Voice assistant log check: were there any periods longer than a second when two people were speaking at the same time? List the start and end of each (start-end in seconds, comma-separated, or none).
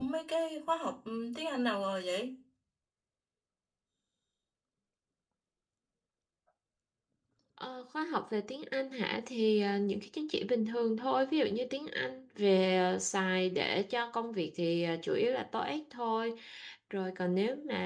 none